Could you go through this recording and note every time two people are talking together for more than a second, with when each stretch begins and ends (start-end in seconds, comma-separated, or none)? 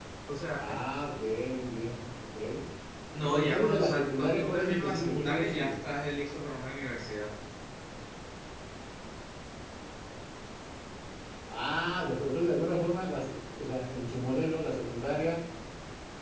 3.2-5.7